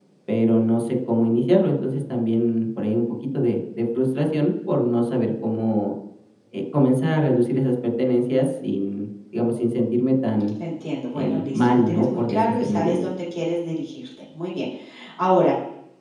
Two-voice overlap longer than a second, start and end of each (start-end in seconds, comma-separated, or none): 11.1-13.1